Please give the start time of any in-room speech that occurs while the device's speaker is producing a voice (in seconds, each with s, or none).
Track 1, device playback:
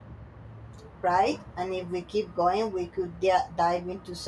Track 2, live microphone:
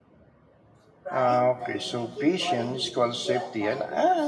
1.1 s